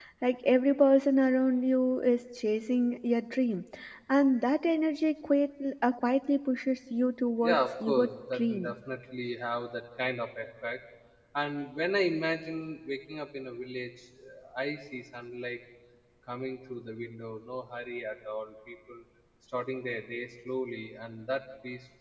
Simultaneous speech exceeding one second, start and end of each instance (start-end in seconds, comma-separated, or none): 7.5-8.7